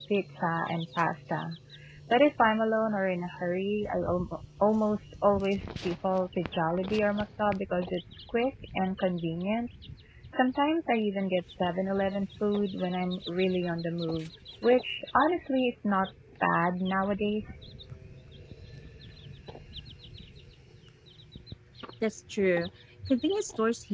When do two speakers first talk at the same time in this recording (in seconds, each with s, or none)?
none